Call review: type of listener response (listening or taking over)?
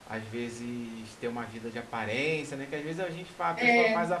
listening